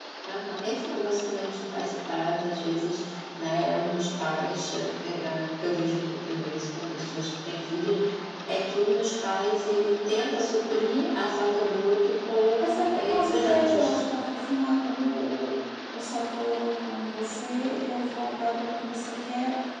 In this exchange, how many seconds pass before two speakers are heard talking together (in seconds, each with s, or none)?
12.6 s